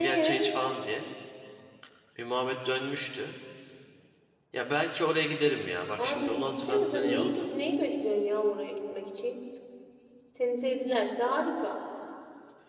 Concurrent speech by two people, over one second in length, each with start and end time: 6.0-7.5

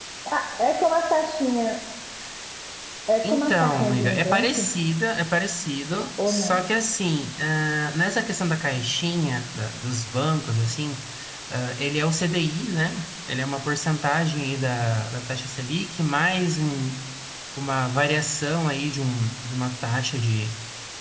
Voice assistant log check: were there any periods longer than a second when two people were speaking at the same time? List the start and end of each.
3.3-4.5

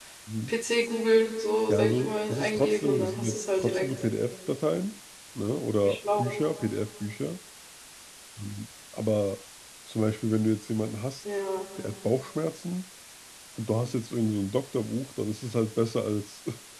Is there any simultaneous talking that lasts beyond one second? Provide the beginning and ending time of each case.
1.7-3.9

